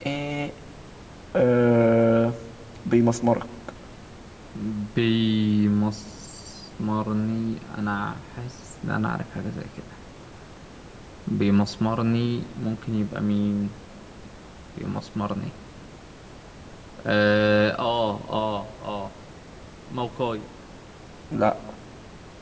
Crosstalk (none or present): none